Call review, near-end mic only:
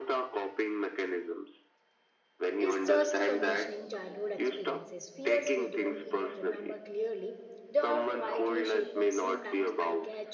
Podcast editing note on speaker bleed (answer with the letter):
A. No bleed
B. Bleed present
B